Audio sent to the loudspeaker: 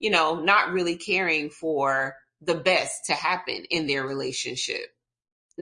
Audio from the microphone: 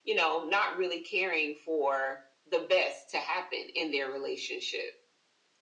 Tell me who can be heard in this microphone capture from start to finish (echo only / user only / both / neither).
echo only